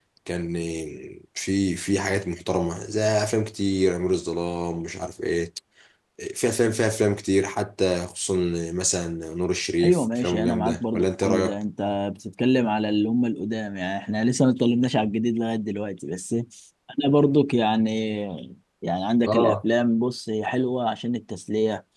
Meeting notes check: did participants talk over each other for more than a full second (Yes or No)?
Yes